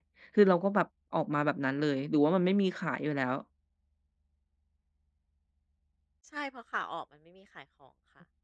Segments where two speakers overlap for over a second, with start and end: none

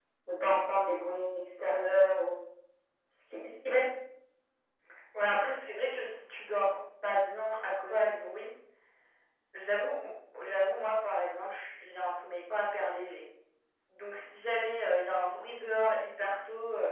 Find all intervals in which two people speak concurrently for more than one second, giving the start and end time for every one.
none

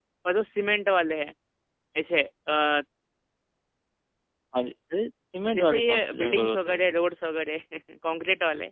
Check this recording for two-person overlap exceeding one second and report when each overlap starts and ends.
5.5-6.8

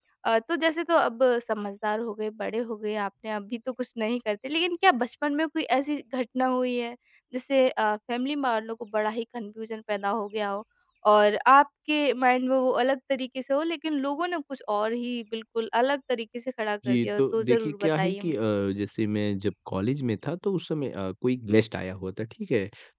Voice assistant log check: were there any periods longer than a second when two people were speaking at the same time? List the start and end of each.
16.9-18.3

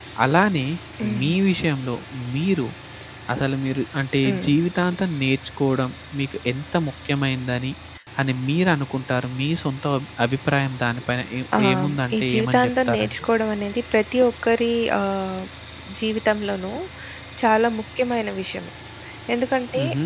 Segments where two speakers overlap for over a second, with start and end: 11.6-13.2

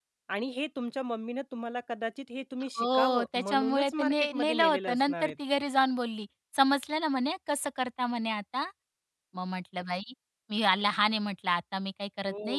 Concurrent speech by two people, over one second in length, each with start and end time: 2.8-5.3

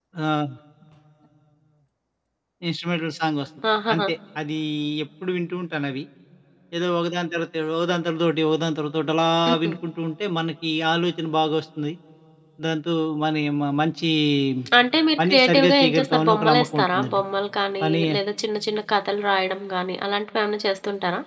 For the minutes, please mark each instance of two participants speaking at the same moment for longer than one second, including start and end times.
15.2-17.2

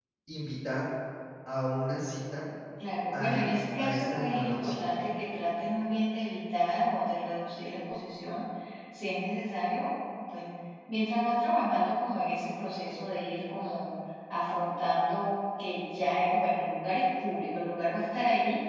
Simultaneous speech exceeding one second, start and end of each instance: 3.1-5.0

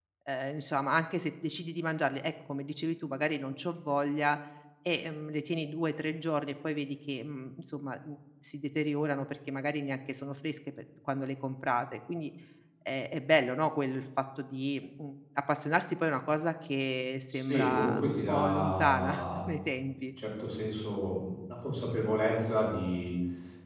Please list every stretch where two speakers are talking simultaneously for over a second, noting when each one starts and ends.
17.3-19.5

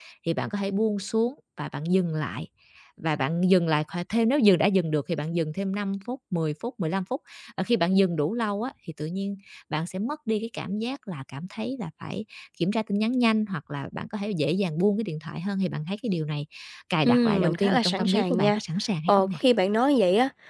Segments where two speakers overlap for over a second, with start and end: 17.1-18.6

